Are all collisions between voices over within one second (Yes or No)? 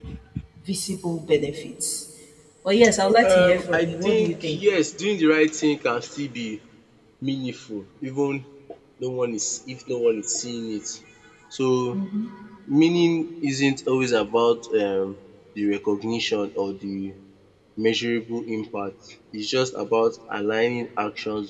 No